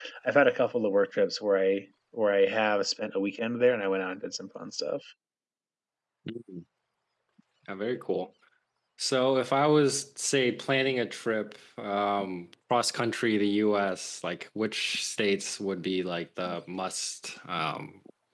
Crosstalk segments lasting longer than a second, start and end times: none

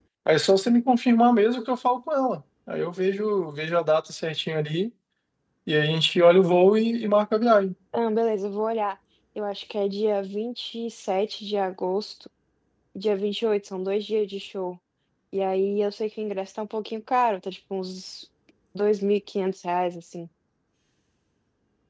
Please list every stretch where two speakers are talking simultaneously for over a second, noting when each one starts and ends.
none

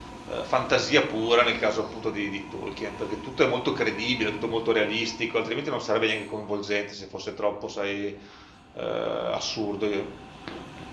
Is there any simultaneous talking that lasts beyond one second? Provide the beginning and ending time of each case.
none

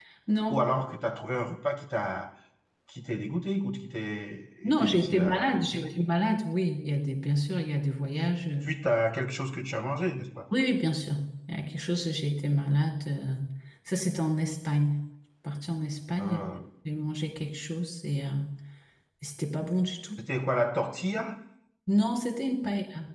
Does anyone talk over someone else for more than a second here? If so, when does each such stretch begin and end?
4.6-5.9

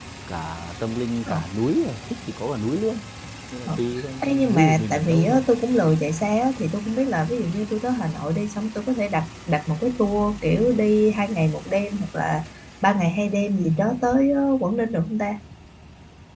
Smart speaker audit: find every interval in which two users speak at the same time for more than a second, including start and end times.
4.2-5.4

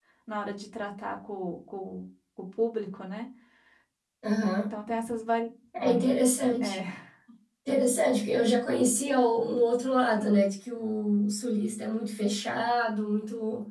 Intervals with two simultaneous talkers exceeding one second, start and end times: none

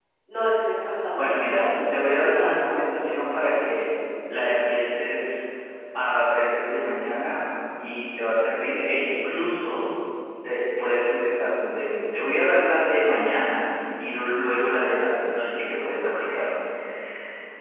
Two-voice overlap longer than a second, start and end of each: 1.2-2.6

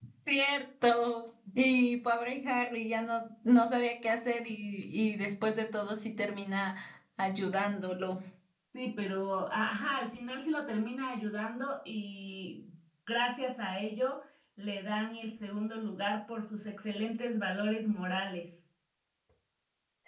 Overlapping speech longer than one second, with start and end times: none

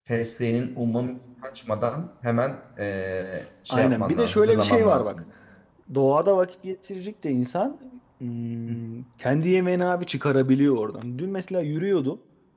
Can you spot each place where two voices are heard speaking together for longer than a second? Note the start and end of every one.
3.7-5.2

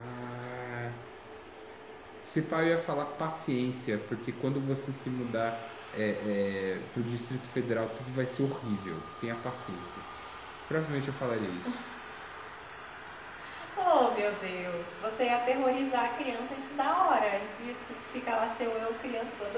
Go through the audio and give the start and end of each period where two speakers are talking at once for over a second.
none

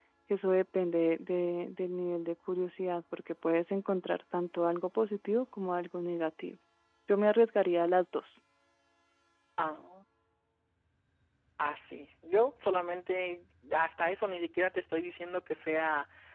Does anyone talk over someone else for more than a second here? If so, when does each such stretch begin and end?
none

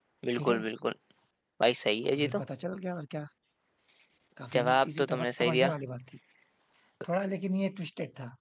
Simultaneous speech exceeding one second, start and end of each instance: 4.5-5.7

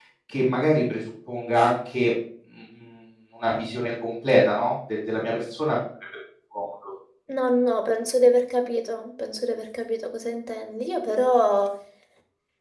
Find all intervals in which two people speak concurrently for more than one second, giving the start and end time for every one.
none

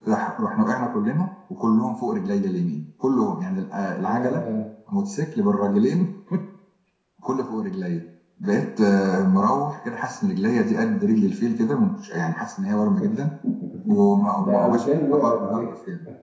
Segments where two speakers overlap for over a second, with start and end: 14.4-15.6

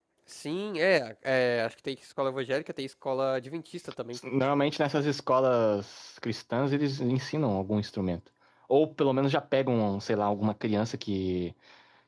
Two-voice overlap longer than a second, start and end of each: none

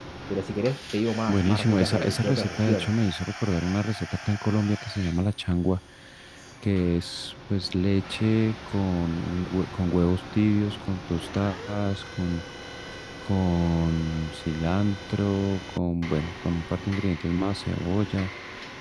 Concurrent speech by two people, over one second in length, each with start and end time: 1.3-2.9

